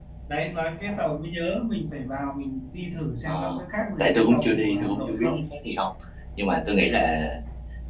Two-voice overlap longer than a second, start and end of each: 4.0-5.4

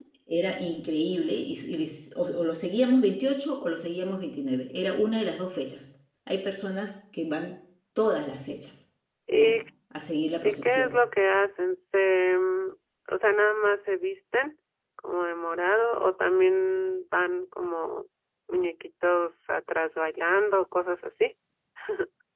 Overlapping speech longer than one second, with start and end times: none

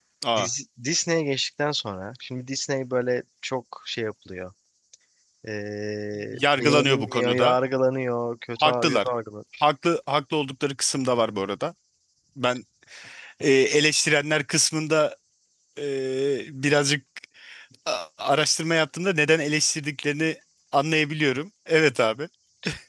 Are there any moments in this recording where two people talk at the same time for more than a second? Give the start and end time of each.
6.3-7.6

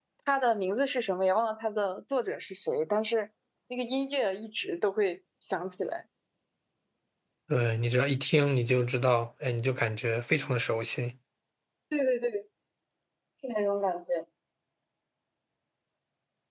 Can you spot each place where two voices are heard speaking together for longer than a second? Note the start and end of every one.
none

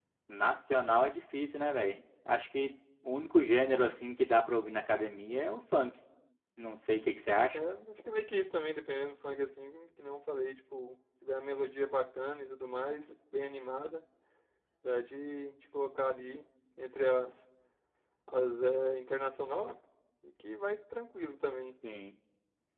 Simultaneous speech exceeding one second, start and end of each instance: none

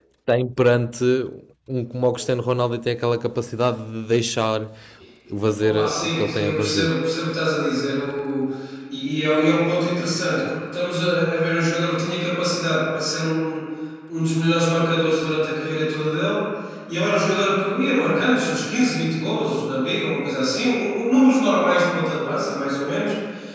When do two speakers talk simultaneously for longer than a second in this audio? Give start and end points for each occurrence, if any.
5.6-6.9

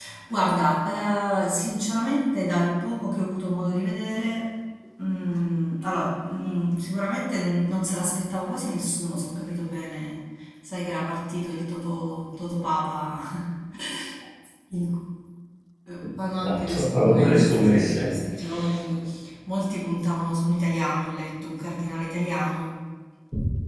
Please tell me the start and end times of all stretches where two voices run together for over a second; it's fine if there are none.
16.4-18.1

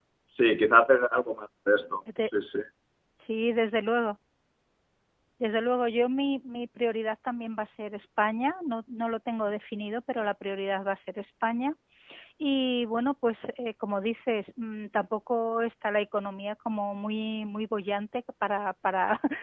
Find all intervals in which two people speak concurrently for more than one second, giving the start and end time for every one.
none

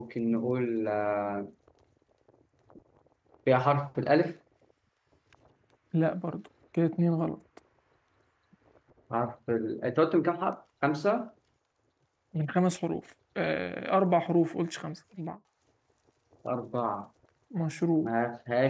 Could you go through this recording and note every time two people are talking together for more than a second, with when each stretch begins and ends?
none

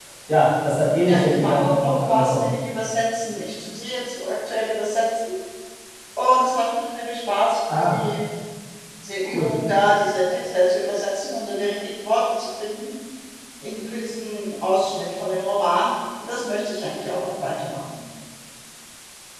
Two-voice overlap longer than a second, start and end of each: 1.0-2.5

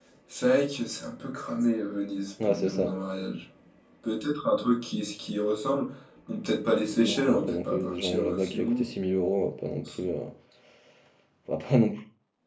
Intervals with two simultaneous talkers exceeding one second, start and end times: 7.0-8.8

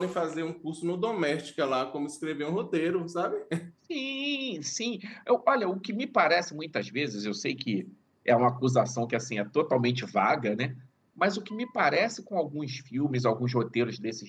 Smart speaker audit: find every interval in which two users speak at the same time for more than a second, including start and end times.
none

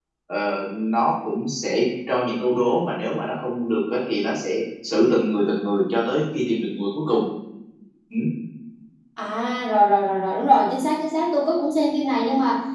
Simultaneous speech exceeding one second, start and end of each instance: none

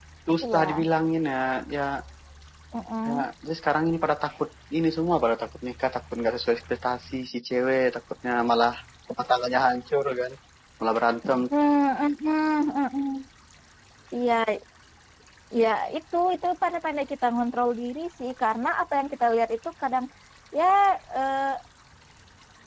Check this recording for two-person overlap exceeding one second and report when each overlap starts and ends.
none

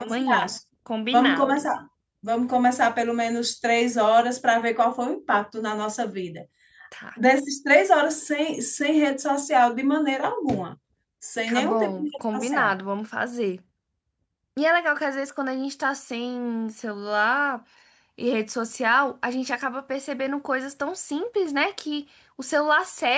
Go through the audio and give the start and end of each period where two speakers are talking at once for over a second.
11.5-12.7

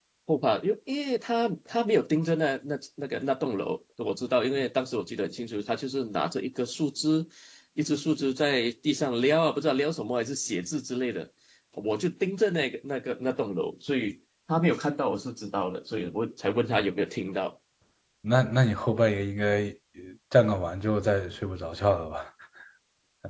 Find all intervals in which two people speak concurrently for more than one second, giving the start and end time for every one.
none

